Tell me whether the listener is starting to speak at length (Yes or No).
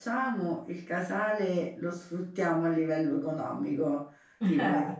No